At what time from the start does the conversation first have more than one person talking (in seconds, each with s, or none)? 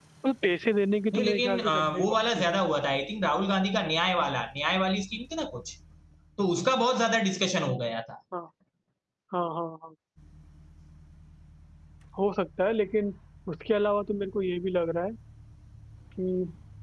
1.1 s